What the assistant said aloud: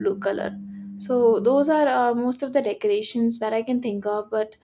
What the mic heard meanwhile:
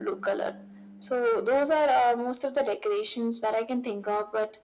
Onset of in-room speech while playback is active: none

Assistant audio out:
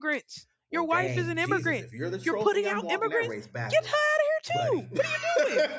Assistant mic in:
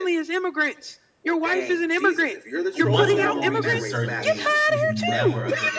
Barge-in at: 2.8 s

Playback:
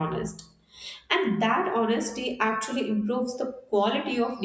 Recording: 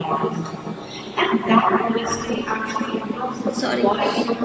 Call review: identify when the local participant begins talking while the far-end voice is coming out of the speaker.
3.5 s

